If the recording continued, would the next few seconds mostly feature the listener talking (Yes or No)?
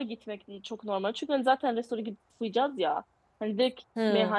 No